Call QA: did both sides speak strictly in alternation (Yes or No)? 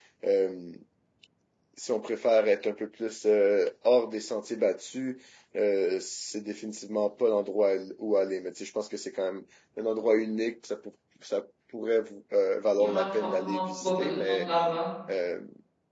No